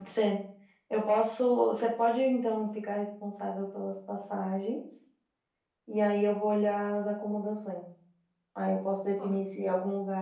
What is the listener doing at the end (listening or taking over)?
listening